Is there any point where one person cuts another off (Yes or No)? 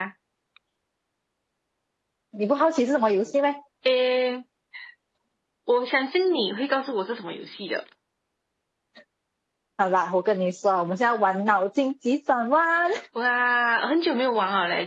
No